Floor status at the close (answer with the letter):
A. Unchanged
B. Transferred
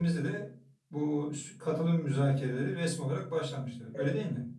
B